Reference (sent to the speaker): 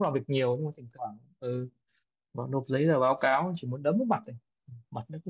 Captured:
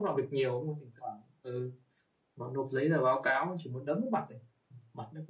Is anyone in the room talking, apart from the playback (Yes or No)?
No